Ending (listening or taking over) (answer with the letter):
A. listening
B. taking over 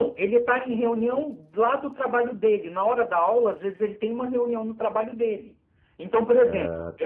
A